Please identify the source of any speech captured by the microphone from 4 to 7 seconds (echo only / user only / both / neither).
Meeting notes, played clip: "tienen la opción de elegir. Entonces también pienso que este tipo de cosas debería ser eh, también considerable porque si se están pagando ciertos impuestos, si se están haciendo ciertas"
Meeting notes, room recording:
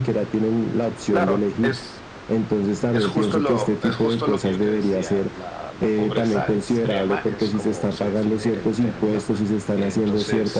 both